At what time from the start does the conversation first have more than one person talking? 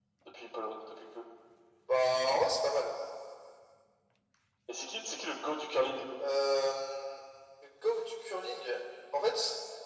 none

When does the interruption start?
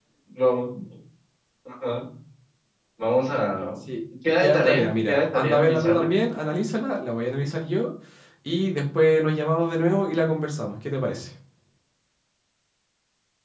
4 s

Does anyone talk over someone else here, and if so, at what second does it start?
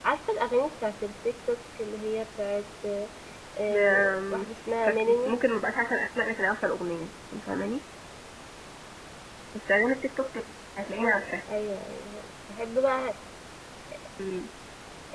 4 s

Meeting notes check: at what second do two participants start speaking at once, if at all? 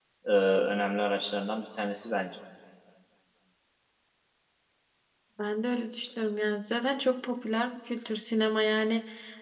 none

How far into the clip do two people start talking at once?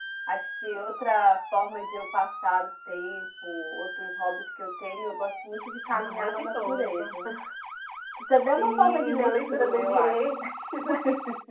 6 s

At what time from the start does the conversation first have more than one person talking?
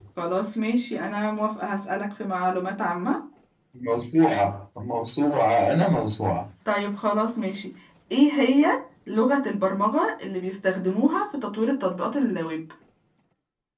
none

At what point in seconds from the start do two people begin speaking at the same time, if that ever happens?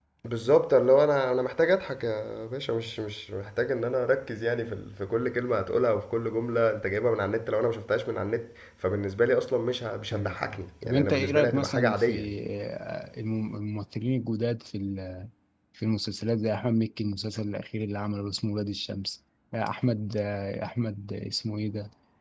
10 s

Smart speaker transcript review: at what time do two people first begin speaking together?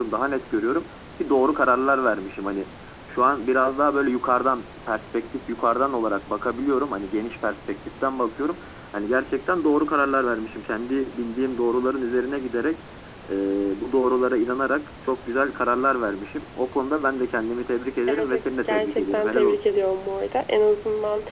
18 s

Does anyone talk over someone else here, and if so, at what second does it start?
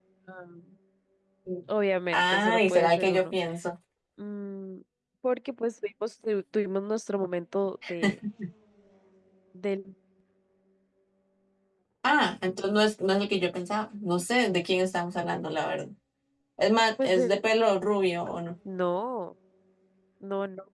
2 s

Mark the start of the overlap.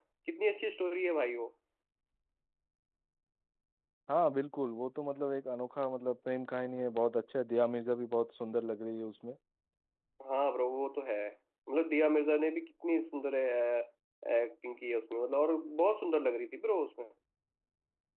none

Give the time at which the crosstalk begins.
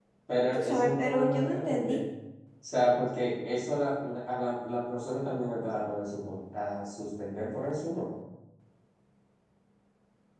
1 s

